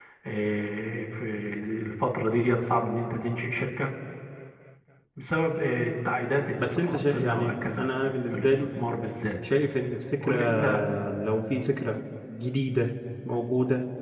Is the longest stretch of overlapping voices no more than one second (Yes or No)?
No